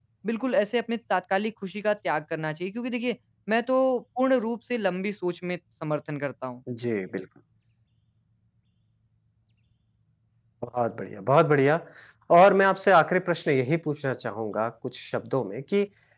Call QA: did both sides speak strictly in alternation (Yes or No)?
Yes